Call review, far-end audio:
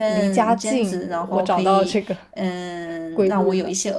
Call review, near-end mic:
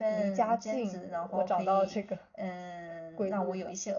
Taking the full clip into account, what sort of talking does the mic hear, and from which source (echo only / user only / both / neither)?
echo only